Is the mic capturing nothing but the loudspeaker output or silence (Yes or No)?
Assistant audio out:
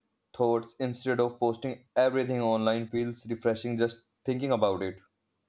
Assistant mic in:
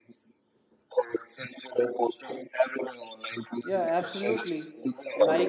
No